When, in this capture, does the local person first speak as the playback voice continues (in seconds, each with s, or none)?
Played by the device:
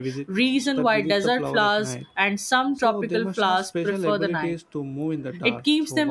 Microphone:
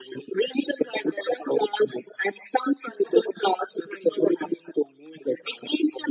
none